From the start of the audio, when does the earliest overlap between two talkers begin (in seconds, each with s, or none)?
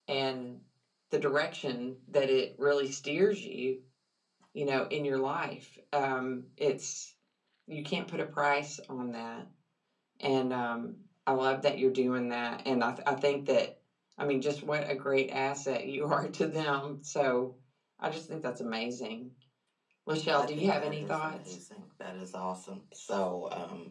20.3 s